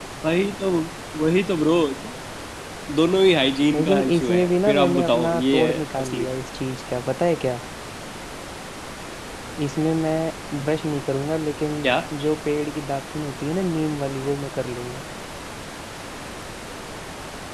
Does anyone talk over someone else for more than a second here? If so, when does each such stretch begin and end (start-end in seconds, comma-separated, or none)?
3.7-6.2